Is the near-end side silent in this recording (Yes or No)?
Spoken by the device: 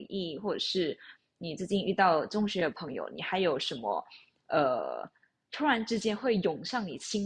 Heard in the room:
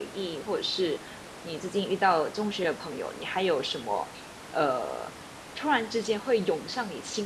Yes